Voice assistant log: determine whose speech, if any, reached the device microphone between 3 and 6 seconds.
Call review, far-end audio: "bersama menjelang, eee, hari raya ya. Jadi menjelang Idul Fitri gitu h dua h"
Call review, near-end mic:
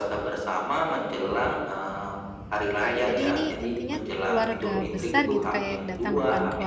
both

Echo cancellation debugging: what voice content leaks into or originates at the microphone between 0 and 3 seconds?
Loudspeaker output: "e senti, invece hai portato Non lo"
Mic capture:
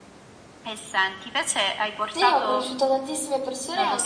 both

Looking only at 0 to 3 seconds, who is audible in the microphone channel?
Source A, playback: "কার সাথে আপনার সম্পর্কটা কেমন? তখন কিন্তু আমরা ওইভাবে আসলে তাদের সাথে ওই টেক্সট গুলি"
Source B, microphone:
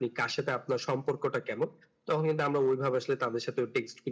echo only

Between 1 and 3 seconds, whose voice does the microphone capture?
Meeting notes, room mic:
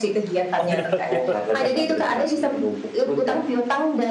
both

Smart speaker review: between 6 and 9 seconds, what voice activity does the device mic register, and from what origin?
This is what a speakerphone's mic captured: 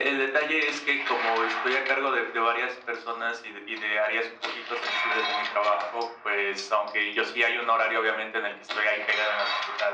echo only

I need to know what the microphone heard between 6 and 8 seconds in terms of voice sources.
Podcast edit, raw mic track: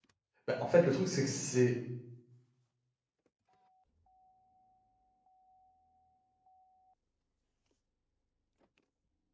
neither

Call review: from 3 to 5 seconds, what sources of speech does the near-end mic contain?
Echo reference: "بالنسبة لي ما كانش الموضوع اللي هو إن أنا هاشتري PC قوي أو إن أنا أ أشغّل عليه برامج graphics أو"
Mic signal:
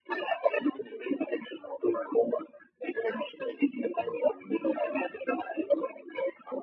echo only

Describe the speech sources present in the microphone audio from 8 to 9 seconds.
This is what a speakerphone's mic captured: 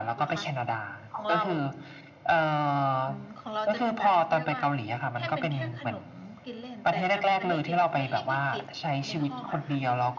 both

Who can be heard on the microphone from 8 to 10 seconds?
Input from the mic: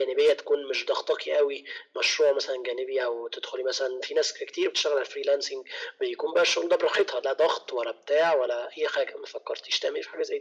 echo only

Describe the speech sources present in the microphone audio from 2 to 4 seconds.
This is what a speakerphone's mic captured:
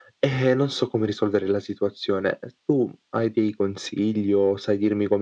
echo only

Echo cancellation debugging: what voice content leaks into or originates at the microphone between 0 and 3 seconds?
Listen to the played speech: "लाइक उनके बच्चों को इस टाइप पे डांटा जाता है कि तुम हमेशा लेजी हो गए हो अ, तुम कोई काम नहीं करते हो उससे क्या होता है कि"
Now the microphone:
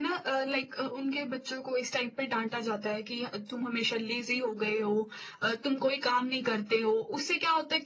echo only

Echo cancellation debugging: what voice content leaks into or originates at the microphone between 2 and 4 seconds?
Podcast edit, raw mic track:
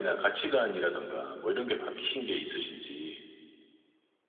echo only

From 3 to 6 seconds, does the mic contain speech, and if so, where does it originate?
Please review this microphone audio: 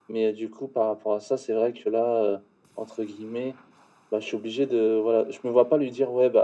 echo only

